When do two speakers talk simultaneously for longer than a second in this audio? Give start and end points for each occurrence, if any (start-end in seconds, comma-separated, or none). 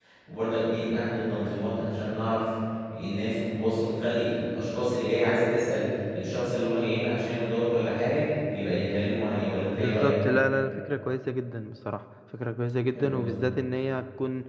none